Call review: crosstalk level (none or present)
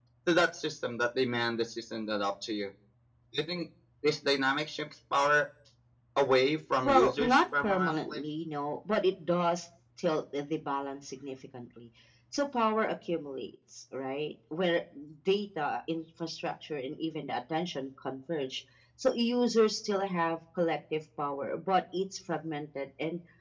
present